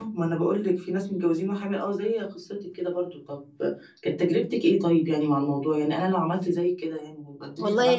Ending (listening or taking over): taking over